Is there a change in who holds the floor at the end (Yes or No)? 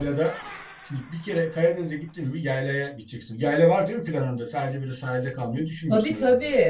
Yes